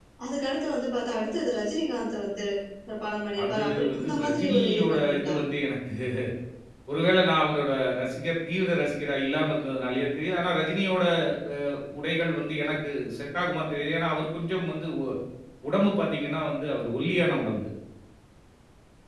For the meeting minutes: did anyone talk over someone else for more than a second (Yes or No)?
Yes